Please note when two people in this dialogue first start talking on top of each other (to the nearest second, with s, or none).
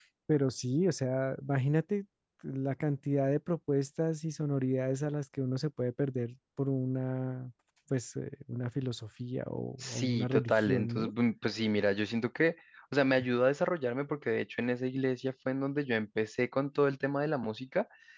10 s